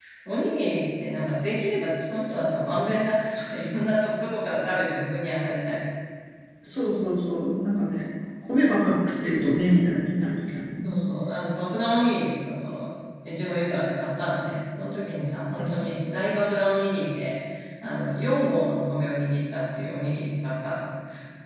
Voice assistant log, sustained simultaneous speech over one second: none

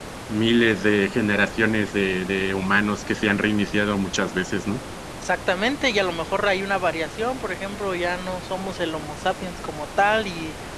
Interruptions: none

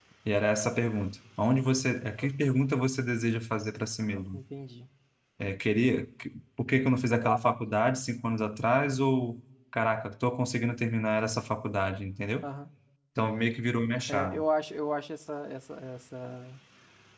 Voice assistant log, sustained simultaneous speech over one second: none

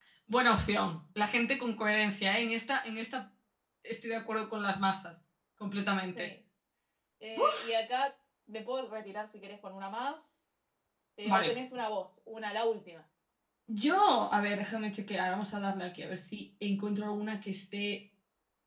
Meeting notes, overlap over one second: none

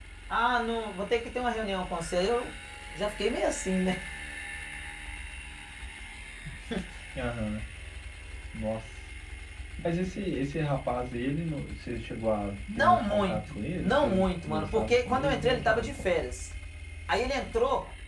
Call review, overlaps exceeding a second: present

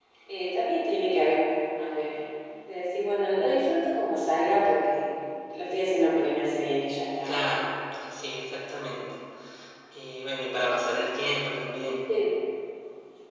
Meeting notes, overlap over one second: none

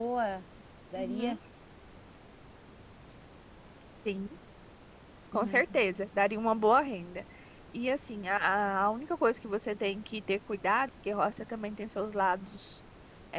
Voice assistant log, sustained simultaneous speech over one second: none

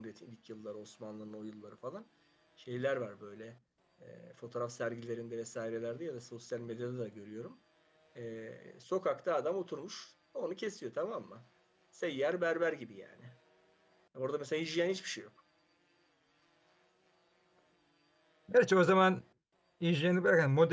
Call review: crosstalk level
none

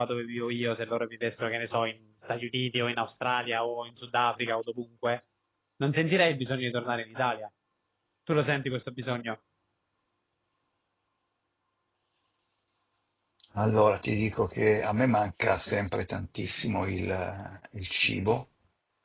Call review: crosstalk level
none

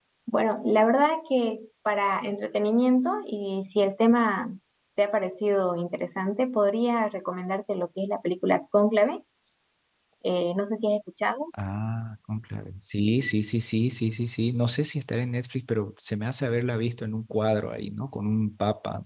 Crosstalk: none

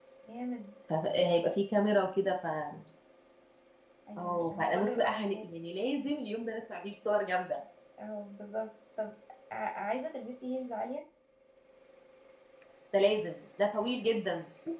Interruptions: present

